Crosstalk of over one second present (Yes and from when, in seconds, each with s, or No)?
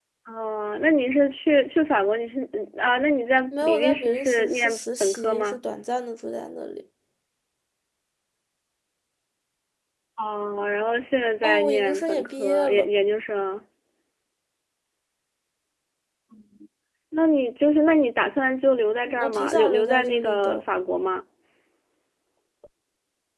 Yes, from 3.5 s